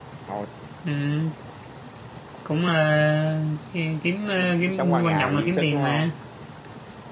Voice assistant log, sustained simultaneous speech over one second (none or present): present